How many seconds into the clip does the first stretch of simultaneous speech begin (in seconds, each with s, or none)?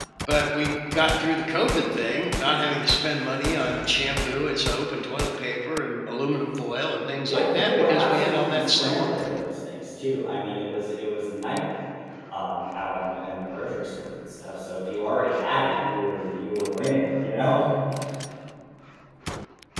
7.3 s